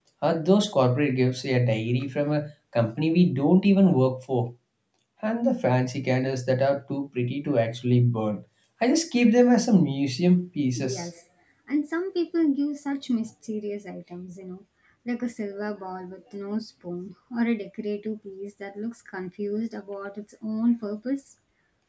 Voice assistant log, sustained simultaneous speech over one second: none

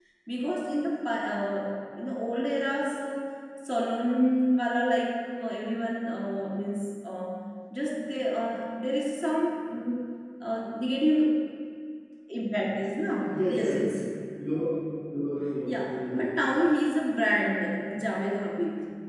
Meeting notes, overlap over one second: none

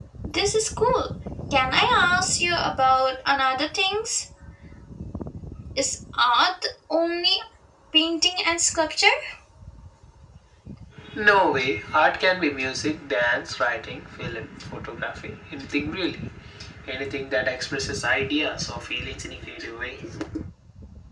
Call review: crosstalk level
none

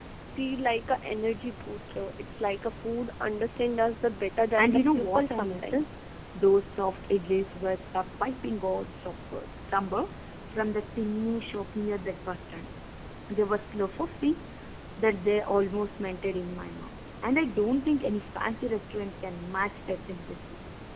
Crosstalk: present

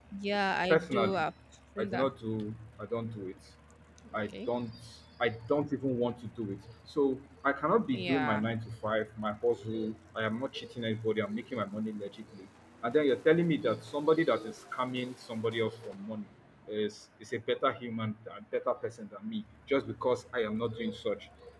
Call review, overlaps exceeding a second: none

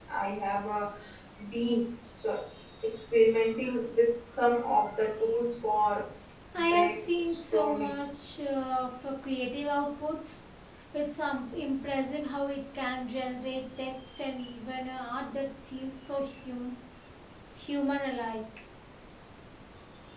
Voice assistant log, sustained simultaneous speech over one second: present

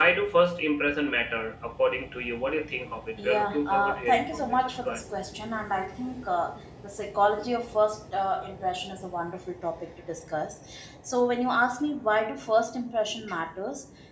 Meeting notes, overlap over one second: present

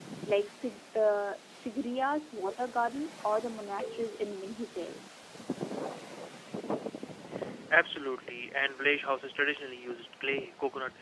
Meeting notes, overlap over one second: none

